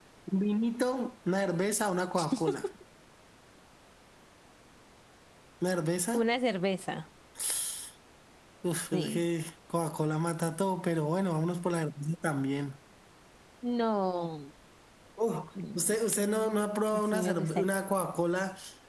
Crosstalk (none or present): present